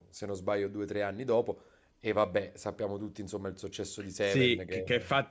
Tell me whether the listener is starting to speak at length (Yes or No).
Yes